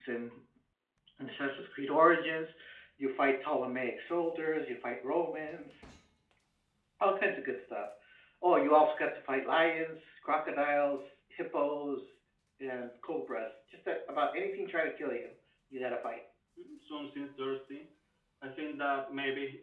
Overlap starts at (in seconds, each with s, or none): none